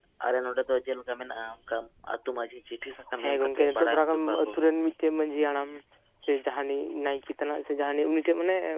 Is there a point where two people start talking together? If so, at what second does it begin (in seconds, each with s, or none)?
3.2 s